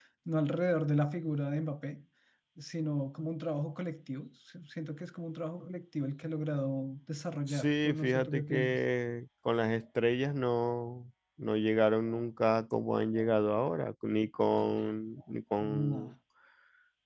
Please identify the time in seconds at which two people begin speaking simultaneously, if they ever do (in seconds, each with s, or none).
7.5 s